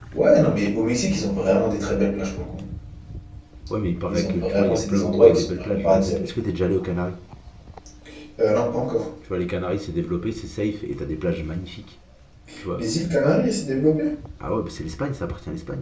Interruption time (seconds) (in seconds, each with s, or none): 4.1 s